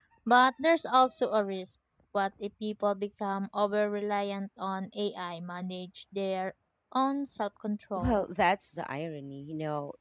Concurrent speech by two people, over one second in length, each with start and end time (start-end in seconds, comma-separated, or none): none